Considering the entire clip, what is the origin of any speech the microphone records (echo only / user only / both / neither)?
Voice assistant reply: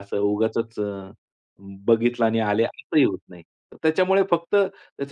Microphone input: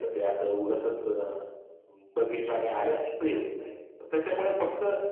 echo only